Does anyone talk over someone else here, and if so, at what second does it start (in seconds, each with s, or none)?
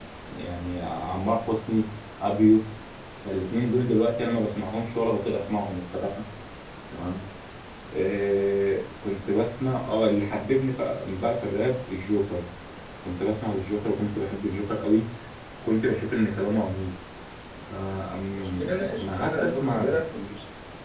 18.4 s